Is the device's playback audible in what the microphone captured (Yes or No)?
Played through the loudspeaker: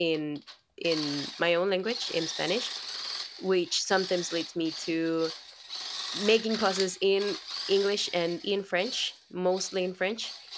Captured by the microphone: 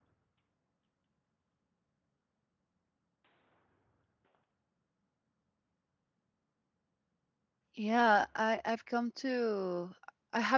No